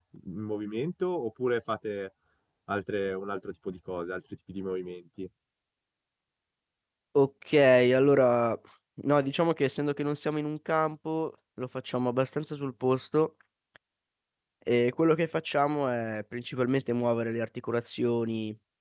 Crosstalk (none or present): none